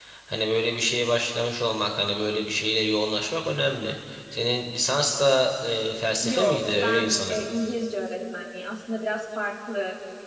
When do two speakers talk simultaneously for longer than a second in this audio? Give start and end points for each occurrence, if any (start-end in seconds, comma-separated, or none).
6.2-7.4